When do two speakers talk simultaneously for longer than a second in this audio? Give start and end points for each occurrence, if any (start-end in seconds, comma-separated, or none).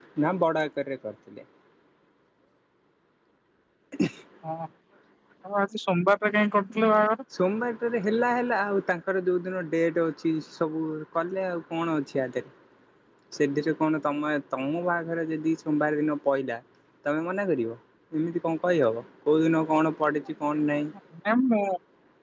none